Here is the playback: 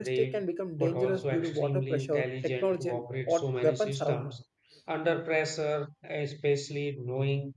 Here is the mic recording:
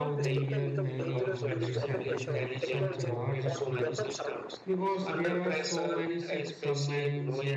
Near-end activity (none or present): present